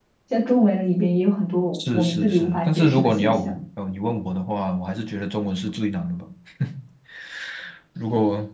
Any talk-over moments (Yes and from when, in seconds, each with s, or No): Yes, from 1.7 s